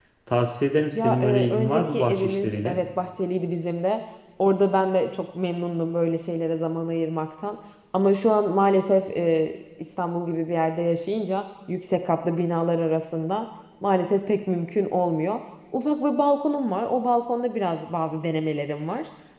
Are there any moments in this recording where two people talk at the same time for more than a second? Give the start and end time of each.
1.0-2.8

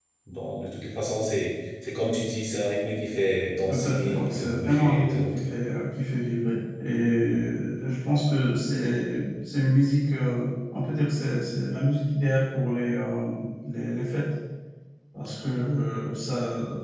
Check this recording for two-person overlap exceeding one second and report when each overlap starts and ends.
3.7-5.4

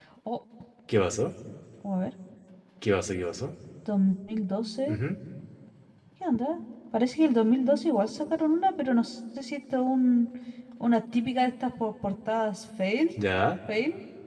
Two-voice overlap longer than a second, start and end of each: none

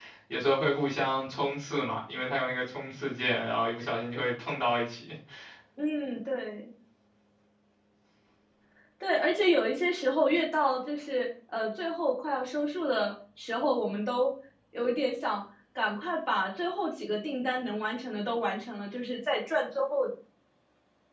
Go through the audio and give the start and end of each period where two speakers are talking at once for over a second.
none

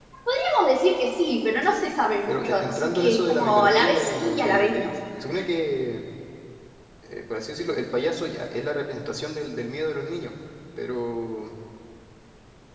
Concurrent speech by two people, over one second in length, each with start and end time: 2.3-4.9

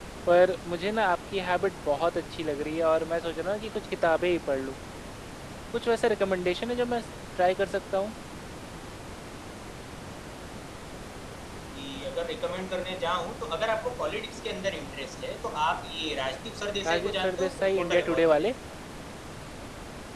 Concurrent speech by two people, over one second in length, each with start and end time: 16.9-18.5

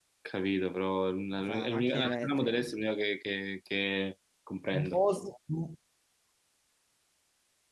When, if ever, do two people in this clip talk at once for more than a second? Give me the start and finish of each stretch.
1.3-2.7

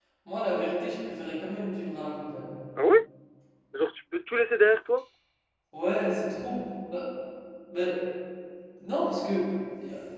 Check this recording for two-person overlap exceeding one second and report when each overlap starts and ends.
none

